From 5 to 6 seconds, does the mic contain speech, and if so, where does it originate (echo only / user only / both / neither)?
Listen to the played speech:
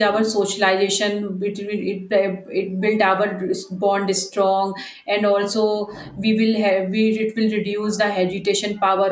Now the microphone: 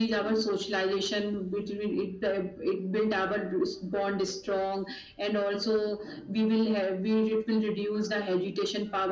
echo only